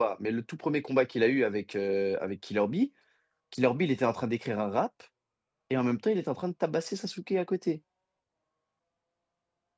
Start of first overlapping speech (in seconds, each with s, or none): none